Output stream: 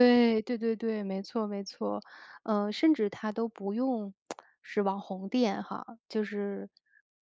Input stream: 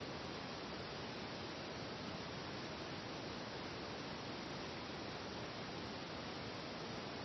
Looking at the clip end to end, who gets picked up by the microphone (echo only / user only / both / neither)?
neither